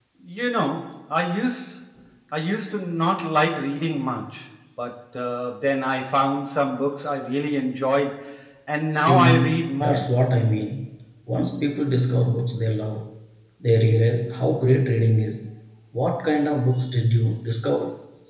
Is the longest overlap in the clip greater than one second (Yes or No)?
Yes